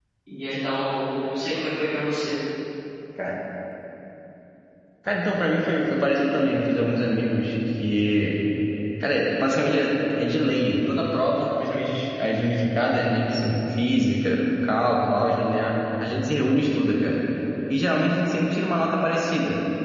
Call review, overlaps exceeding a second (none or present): none